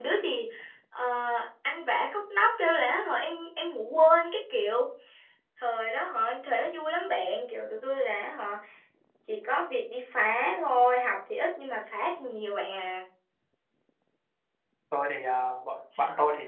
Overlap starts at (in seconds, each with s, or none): none